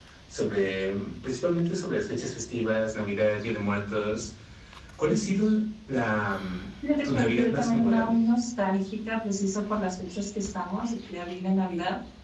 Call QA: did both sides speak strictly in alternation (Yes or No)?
No